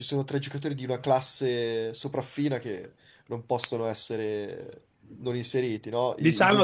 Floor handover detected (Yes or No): Yes